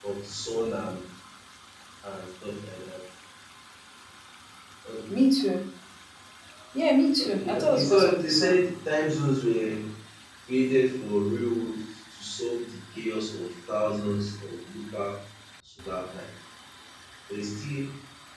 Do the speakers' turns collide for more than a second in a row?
Yes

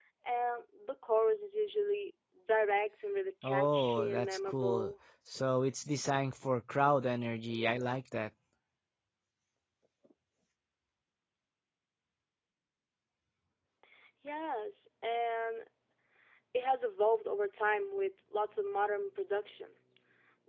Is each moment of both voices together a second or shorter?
No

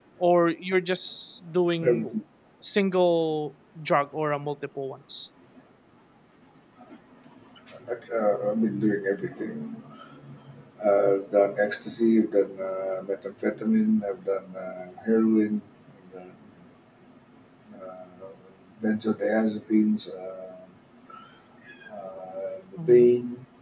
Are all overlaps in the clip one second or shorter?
Yes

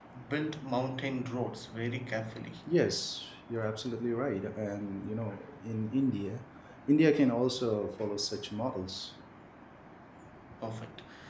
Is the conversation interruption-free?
Yes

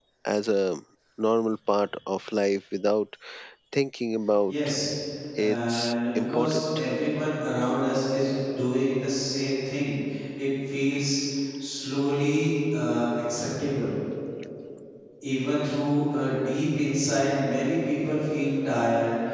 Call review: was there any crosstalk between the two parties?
Yes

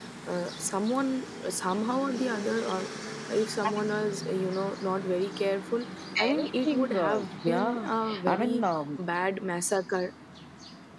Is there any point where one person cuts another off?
Yes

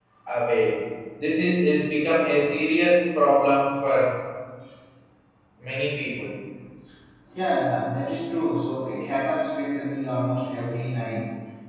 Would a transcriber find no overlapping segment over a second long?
Yes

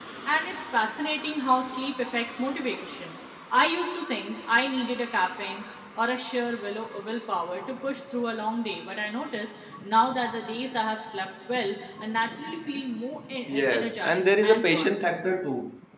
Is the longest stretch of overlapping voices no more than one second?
No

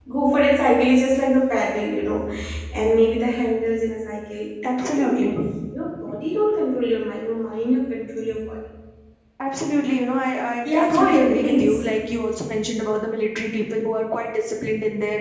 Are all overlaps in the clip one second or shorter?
No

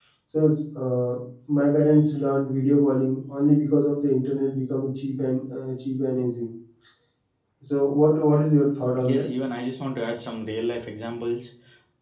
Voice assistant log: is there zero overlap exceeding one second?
Yes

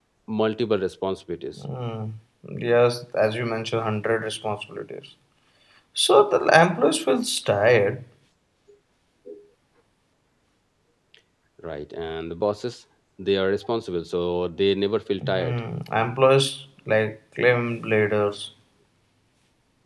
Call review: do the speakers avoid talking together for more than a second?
Yes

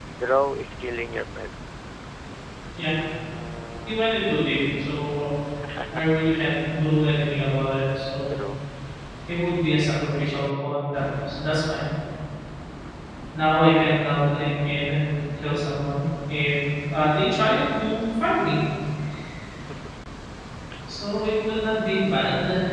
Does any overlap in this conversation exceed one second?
No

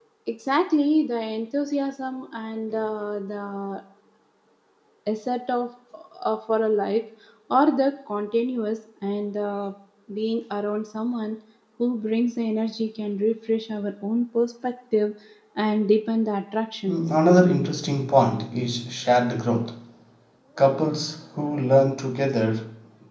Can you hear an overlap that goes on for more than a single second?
No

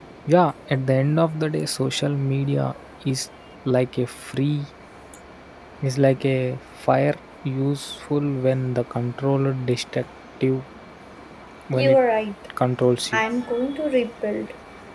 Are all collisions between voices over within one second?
Yes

